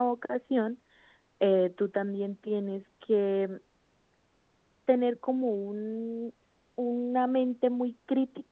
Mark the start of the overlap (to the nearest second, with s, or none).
none